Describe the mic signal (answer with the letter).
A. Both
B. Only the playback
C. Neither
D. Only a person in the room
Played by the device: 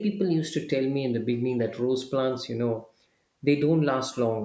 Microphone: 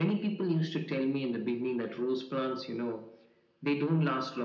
B